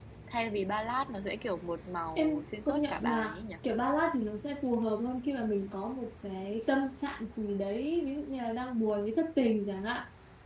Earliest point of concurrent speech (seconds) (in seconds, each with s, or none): 2.2 s